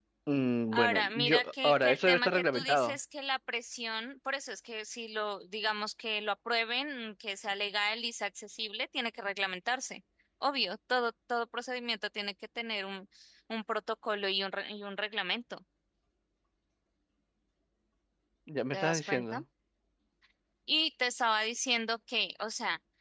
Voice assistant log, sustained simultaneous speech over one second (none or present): present